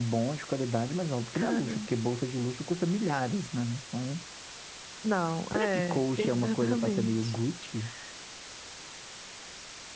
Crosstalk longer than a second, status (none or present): present